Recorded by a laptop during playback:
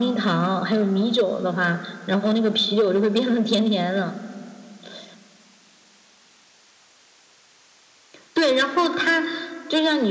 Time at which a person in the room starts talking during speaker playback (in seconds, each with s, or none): none